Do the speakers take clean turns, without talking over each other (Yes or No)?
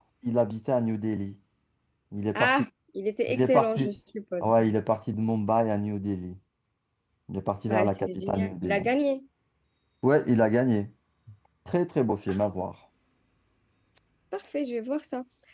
No